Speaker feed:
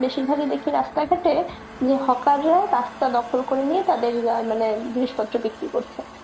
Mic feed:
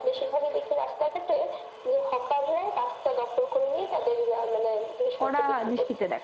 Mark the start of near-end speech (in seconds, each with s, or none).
5.2 s